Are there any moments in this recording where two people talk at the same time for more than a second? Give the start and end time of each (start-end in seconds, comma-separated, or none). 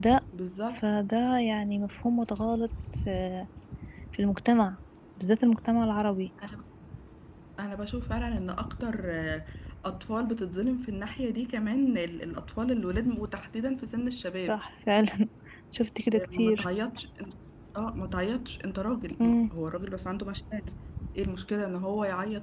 none